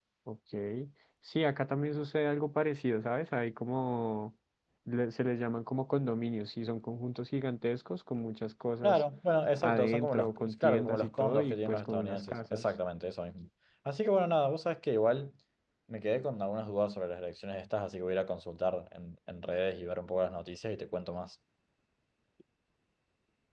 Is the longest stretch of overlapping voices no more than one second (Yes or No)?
No